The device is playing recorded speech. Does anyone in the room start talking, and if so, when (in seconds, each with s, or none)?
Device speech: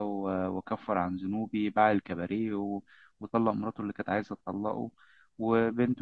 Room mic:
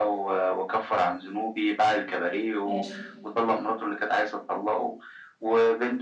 2.6 s